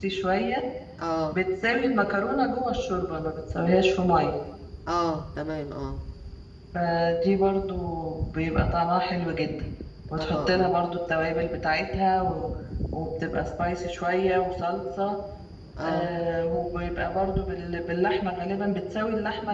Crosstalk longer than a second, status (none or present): none